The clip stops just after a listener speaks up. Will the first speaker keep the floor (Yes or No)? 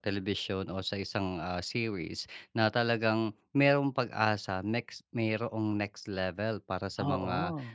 Yes